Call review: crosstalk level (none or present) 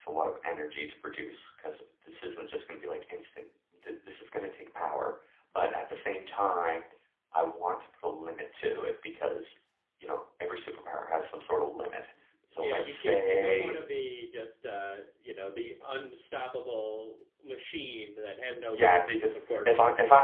present